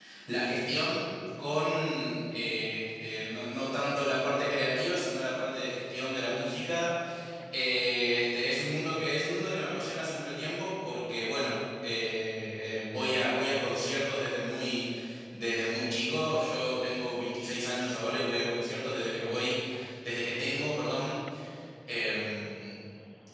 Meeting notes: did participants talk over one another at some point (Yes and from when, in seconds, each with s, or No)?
No